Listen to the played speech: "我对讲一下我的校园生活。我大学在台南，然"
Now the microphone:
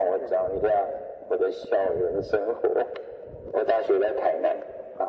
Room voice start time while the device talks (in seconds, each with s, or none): none